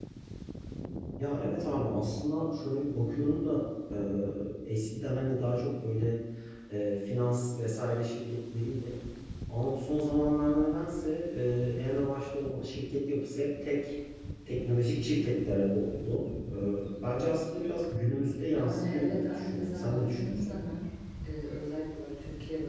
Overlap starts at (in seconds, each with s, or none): 18.5 s